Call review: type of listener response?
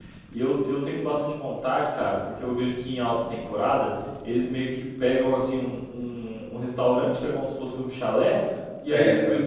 listening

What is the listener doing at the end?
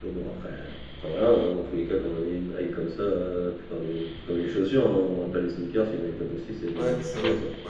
taking over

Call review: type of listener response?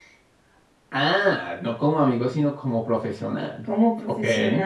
taking over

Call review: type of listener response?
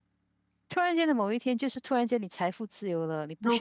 listening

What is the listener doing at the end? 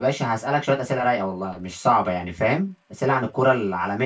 listening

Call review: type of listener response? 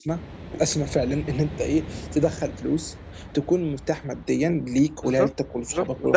taking over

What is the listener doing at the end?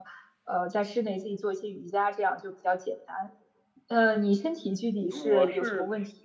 taking over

